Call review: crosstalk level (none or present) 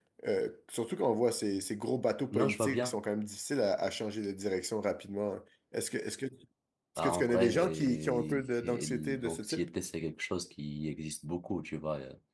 present